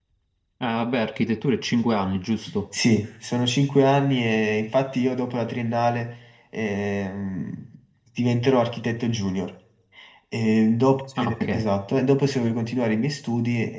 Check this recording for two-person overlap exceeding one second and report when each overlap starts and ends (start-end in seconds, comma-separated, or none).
none